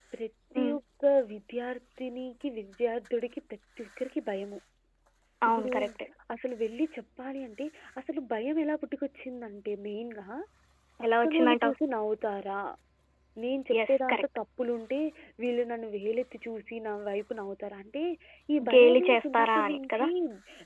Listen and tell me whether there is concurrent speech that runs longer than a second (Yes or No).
Yes